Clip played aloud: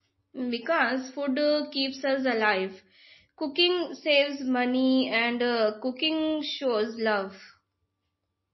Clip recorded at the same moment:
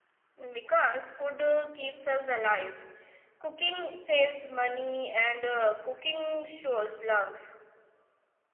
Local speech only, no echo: none

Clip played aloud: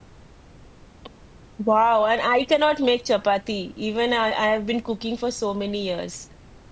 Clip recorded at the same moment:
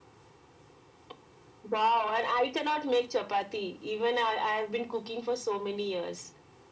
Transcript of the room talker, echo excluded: none

